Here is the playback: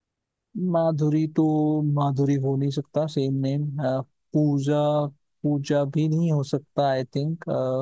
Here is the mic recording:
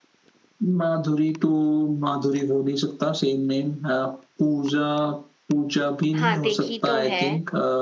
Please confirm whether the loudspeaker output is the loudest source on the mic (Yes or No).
Yes